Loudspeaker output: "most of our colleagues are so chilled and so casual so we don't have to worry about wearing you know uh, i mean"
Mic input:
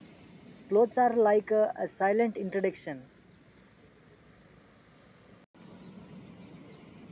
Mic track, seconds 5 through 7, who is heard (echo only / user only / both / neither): neither